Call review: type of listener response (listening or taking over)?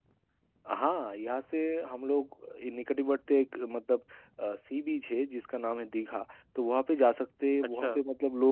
listening